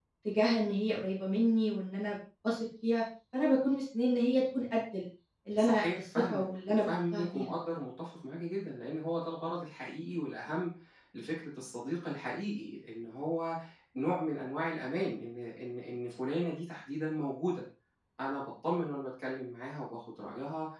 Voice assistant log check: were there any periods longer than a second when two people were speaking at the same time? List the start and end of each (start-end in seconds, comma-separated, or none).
5.6-7.4